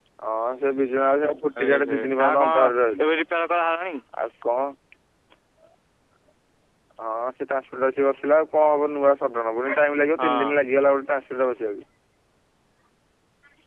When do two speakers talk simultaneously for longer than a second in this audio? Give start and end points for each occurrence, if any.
1.6-3.0

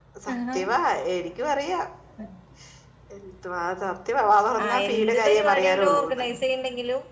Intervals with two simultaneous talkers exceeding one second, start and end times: 4.7-6.2

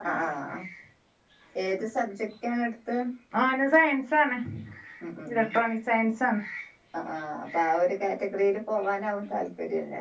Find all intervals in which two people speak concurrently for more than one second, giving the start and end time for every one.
none

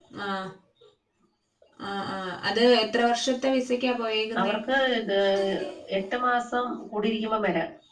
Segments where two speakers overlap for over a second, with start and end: none

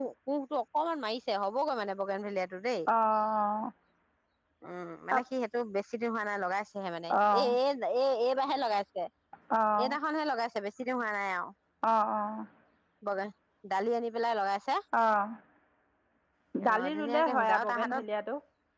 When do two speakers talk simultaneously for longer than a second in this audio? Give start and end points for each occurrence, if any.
16.7-18.0

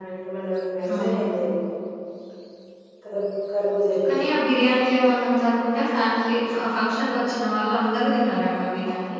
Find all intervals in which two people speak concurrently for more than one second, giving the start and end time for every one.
none

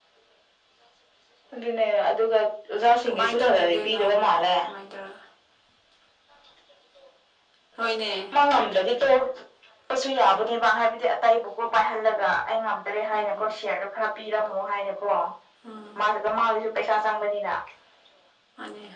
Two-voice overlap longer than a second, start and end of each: 3.1-4.5

